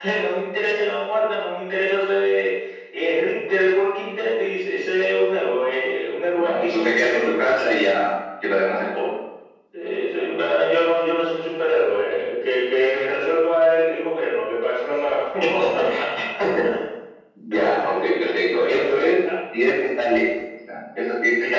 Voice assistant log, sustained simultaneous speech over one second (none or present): present